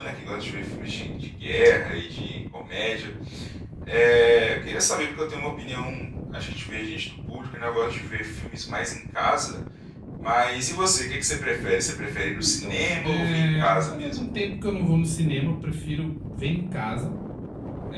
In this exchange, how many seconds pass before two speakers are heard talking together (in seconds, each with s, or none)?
12.4 s